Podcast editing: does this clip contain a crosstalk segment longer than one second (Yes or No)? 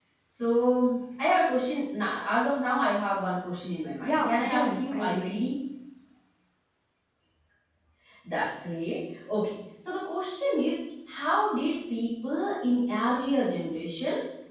Yes